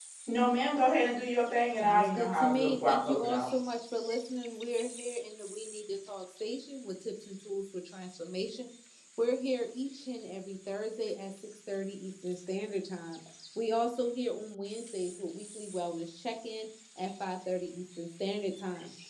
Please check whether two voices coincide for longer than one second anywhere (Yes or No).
Yes